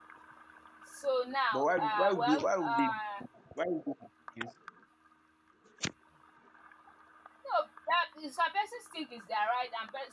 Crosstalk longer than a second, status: present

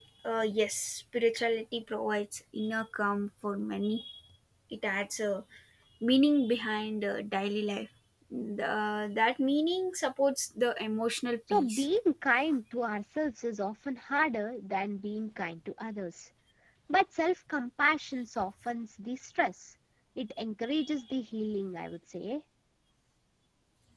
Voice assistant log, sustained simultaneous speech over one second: none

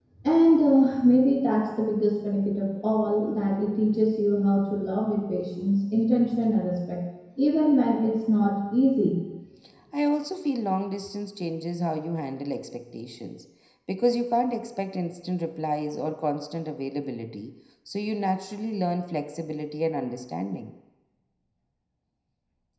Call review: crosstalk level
none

